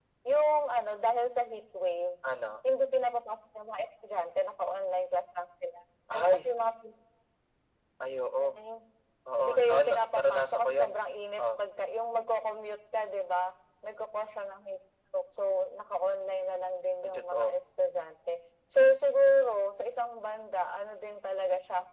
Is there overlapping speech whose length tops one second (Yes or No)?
Yes